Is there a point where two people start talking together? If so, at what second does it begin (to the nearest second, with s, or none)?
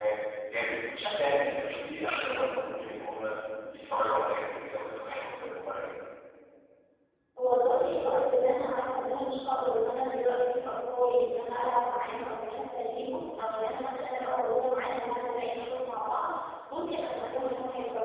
none